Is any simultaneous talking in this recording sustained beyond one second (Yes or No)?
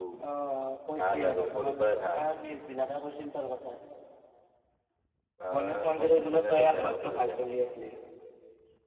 Yes